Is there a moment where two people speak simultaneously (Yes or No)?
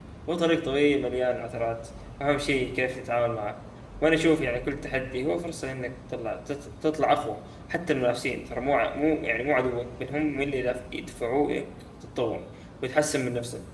No